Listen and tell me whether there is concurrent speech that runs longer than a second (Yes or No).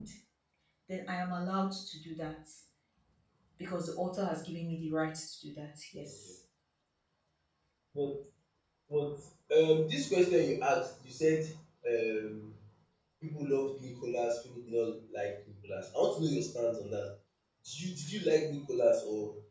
No